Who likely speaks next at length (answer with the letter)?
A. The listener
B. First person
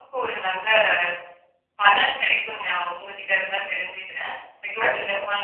A